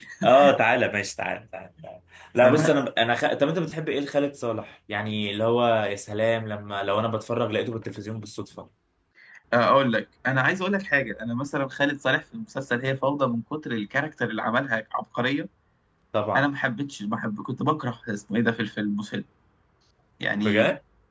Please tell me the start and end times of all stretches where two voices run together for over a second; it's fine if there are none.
none

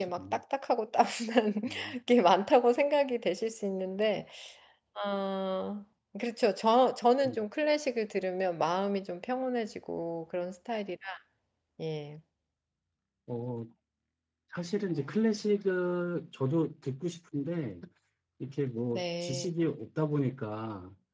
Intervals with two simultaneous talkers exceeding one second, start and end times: none

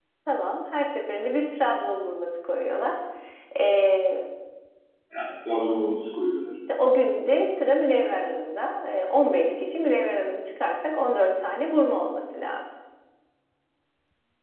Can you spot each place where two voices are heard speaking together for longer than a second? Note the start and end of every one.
none

